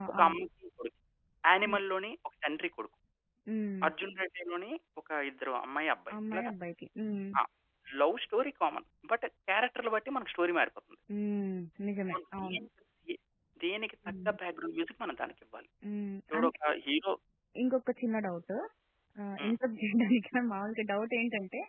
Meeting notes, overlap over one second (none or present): none